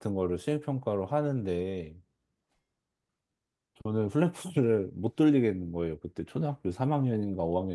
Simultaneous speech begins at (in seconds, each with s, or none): none